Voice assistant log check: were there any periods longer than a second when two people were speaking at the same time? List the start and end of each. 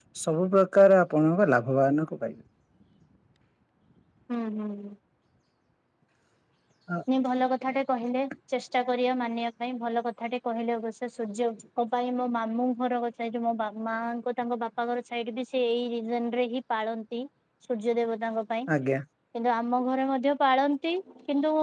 none

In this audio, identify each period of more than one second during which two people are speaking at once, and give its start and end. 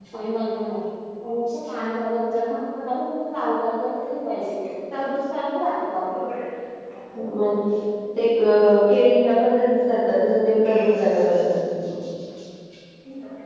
none

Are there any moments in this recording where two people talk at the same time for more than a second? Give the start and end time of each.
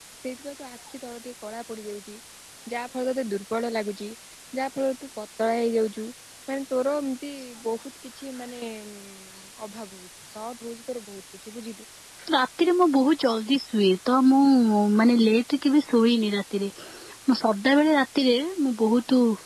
none

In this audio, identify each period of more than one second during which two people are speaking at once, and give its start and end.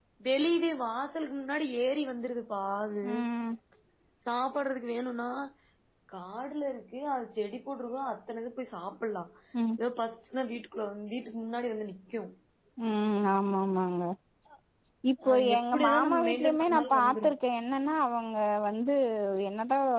15.3-17.3

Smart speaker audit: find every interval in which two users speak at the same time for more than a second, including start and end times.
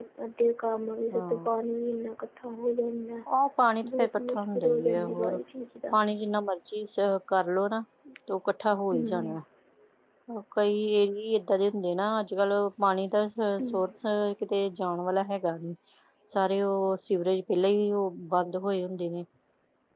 3.8-5.4

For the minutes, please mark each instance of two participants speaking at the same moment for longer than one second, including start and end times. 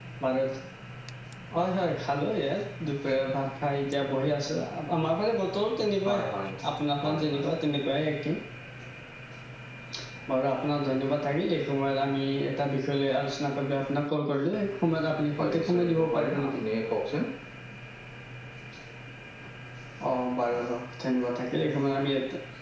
15.4-16.6

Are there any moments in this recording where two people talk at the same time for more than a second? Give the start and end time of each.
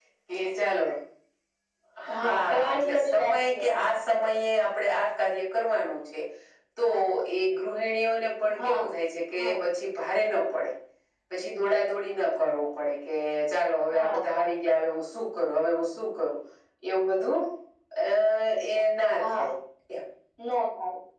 2.2-3.9

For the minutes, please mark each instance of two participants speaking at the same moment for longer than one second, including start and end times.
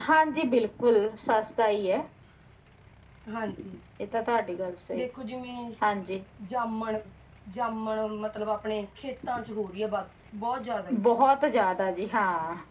none

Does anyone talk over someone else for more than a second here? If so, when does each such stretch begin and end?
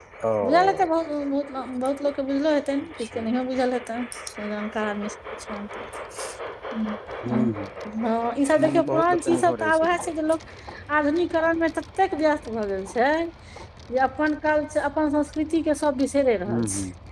8.7-10.1

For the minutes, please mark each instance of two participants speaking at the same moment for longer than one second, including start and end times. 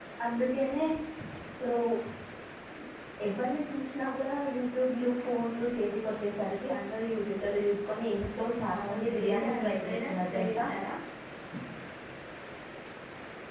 8.8-10.6

